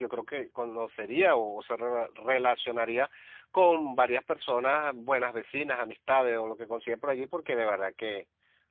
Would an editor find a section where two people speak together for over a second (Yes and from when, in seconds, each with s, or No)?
No